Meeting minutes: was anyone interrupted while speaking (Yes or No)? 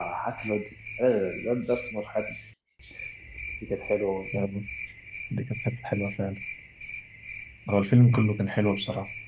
No